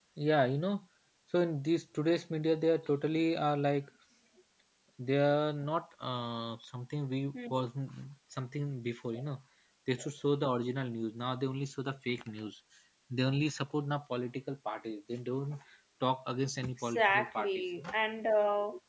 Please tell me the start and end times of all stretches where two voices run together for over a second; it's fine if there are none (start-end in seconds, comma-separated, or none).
16.6-18.0